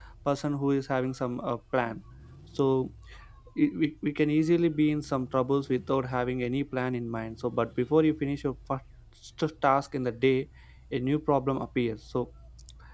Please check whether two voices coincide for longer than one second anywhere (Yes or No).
No